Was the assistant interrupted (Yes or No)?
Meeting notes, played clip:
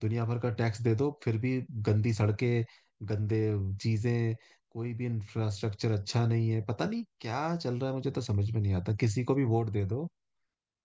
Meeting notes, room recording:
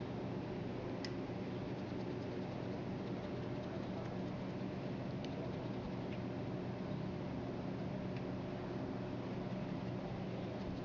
No